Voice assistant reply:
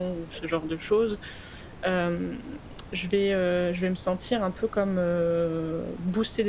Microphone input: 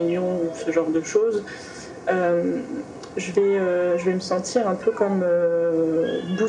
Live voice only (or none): none